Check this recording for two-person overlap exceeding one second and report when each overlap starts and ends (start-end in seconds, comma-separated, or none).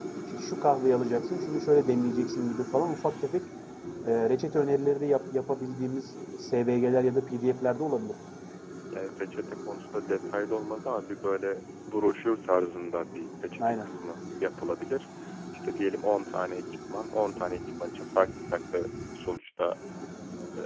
none